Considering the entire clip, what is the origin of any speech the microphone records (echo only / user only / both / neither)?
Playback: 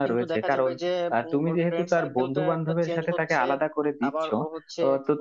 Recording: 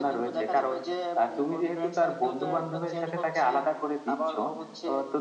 echo only